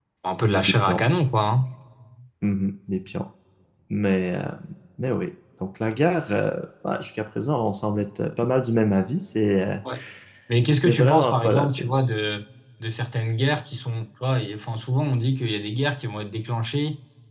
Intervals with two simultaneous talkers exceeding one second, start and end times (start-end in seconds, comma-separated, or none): 10.8-12.0